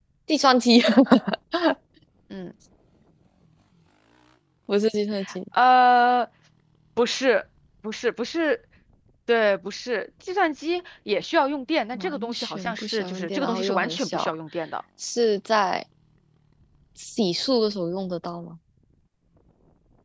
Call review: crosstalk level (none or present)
present